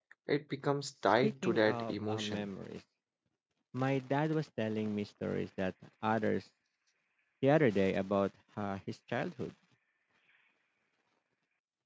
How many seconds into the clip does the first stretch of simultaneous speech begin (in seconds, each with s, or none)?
1.2 s